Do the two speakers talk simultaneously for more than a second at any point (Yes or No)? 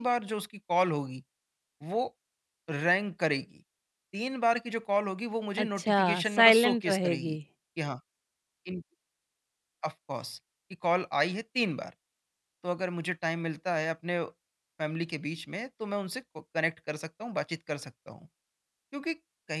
Yes